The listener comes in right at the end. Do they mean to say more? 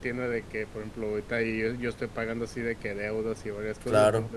No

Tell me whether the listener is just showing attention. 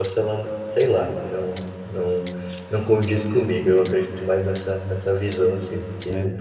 Yes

